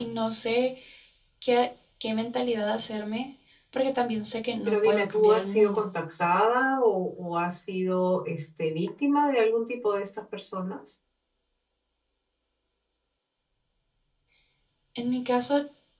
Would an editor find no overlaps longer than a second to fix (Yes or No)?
No